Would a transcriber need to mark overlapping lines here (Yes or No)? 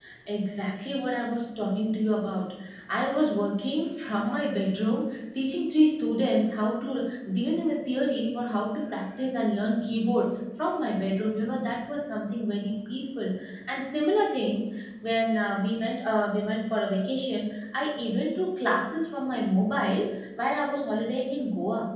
No